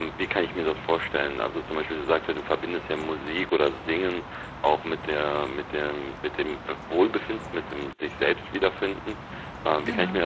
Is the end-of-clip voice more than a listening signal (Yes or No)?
No